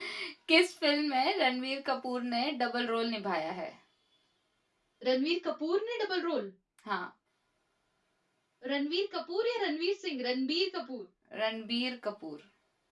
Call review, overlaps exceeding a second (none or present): none